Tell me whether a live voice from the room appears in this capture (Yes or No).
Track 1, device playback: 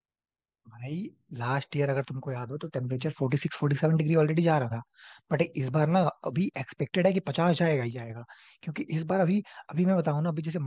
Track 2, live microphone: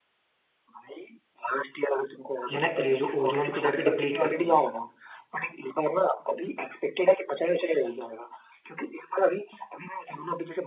Yes